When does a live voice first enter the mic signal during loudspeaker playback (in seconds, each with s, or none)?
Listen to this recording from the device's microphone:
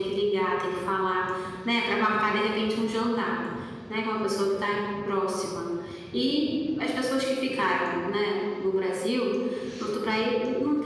none